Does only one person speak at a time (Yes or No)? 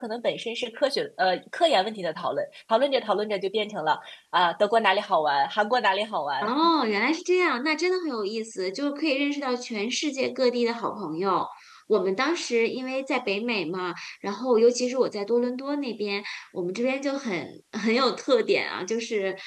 Yes